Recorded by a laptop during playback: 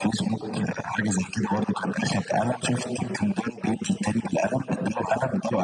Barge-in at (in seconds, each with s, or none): none